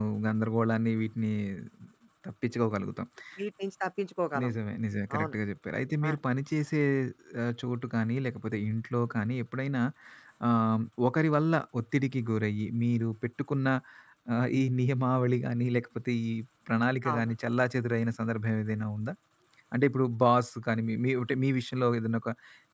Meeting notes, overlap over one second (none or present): none